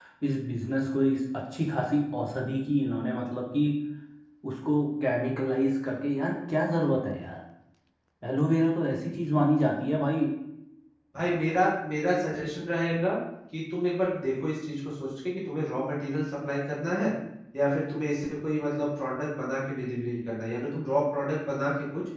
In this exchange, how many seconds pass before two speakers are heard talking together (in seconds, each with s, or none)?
none